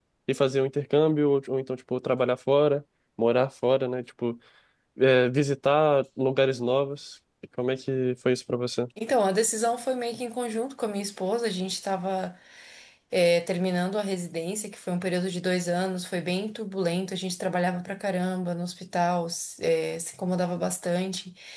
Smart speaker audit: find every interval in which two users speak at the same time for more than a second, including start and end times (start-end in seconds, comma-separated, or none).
none